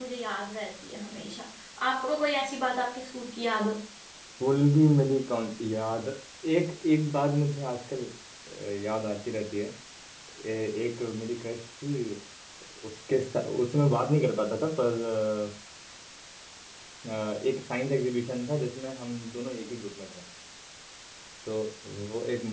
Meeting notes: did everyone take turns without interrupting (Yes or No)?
Yes